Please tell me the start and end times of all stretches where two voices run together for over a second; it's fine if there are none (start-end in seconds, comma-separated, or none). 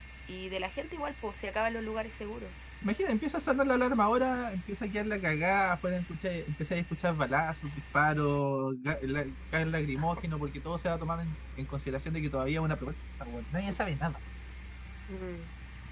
none